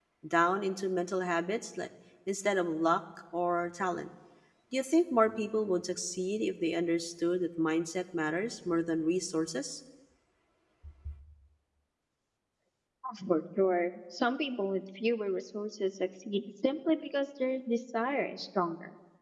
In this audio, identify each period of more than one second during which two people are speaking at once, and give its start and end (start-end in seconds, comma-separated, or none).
none